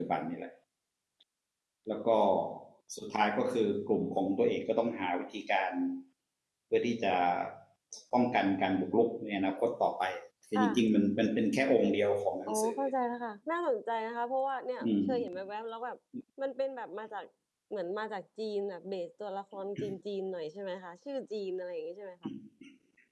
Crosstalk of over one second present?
No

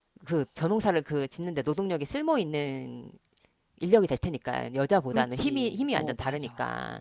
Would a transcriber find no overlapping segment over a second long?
No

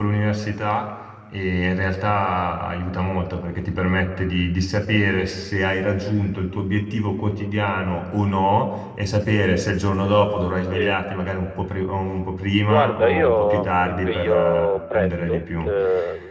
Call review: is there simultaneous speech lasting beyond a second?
Yes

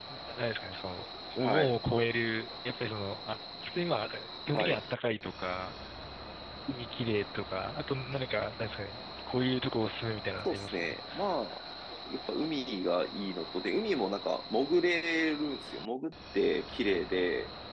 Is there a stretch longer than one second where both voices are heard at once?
No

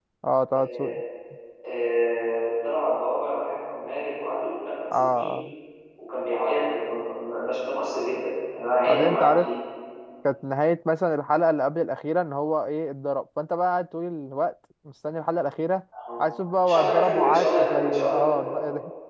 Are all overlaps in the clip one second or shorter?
No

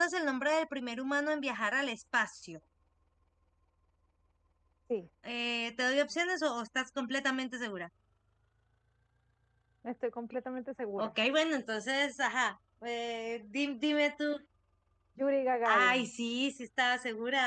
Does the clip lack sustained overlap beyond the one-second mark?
Yes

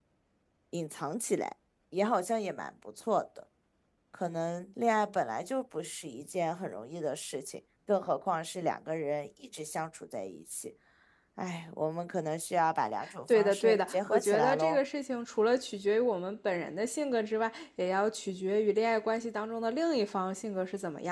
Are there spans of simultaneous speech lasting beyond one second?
Yes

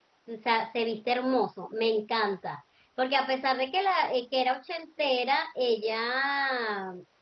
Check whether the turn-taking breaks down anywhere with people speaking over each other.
No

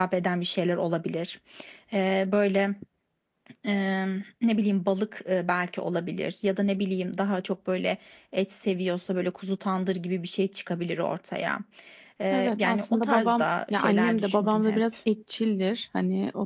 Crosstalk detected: Yes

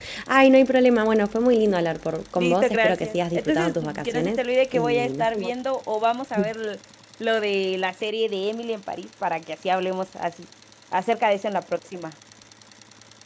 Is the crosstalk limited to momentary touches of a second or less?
No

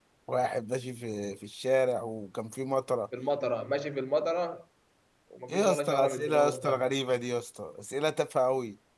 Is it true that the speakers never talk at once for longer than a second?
No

